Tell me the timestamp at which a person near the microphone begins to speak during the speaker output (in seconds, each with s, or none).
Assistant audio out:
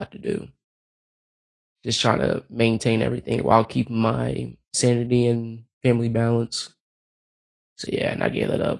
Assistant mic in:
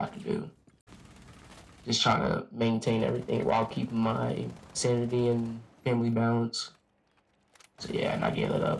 none